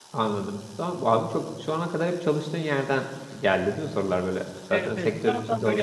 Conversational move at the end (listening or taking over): taking over